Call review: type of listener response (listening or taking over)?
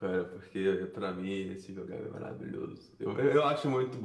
listening